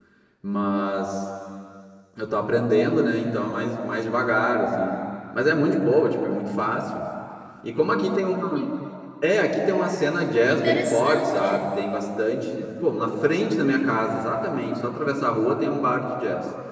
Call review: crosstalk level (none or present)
present